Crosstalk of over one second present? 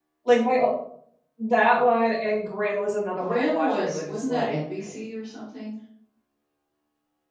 Yes, from 3.2 s

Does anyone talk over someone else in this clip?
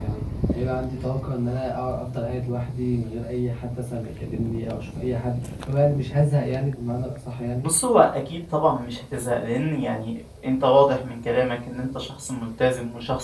No

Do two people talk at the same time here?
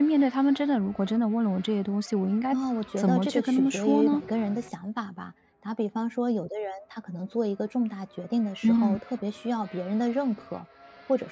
Yes, from 3.0 s

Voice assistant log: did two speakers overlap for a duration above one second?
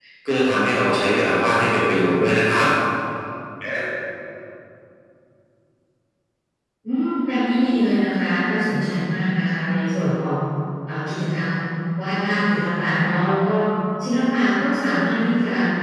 No

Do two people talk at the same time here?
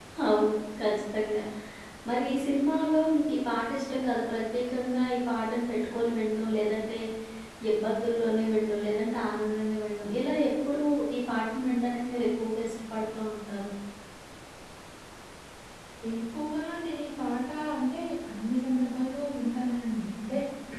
No

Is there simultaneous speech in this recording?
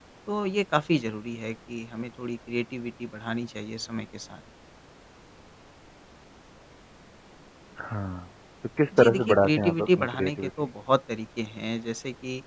Yes, from 8.9 s

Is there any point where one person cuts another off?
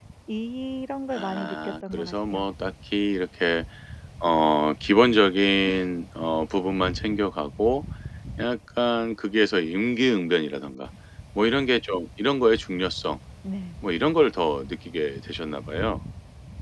Yes, from 1.1 s

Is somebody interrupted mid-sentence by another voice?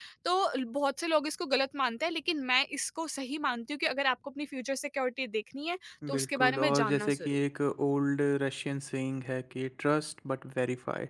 Yes, from 6.0 s

